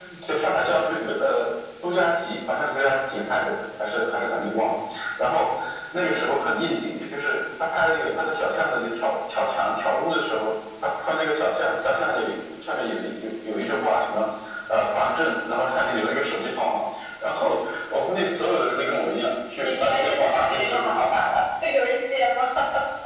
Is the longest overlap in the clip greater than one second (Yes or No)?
Yes